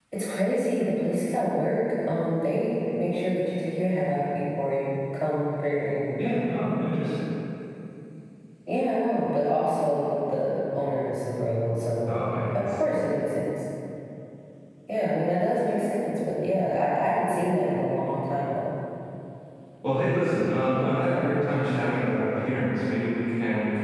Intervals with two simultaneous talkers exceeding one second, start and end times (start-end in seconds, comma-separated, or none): 20.7-22.2